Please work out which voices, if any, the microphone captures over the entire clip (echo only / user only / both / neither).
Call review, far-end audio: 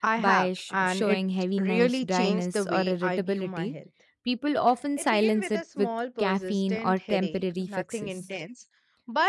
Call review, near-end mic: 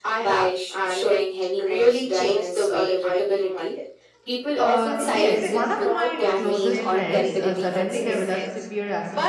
both